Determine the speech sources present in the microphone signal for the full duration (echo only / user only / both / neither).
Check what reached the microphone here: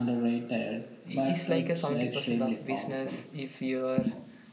both